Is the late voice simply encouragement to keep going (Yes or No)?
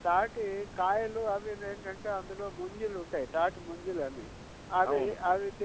Yes